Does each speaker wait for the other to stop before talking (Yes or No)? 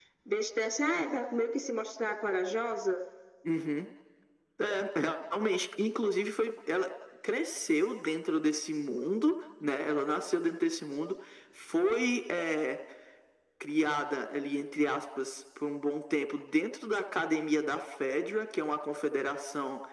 Yes